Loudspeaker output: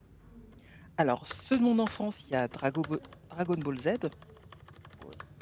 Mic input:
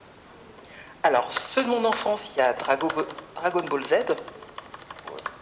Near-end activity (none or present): none